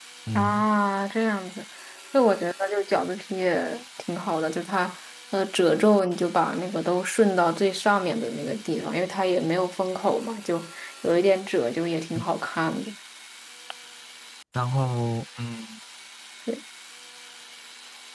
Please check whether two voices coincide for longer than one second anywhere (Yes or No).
No